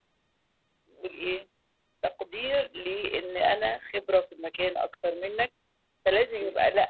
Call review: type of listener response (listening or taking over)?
listening